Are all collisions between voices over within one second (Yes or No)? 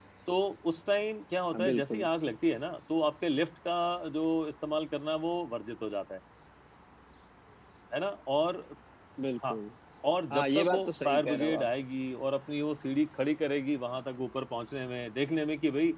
No